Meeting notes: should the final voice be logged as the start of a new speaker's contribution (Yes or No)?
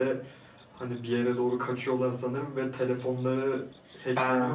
Yes